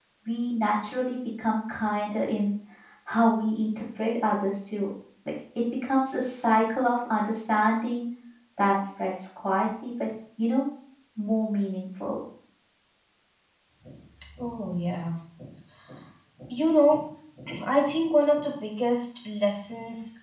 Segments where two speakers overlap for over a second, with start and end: none

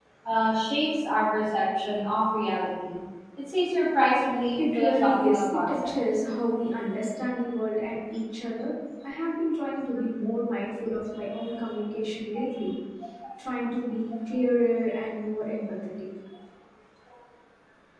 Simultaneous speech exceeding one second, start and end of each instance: 4.6-5.9

